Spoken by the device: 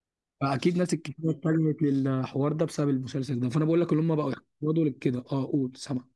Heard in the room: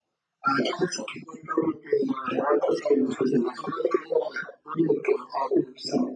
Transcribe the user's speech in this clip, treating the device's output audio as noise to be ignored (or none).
none